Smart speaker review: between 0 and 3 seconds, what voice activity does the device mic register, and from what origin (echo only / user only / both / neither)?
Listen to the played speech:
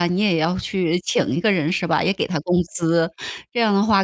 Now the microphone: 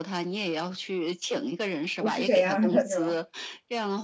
both